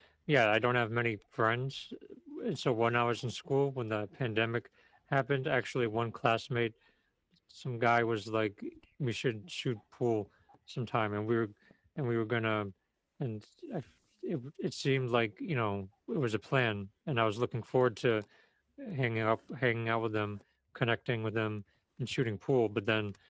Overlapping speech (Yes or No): No